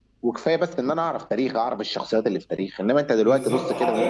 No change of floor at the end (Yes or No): No